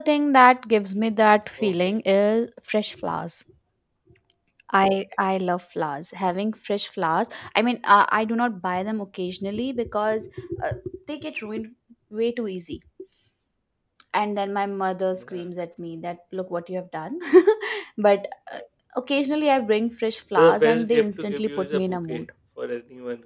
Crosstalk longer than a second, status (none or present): present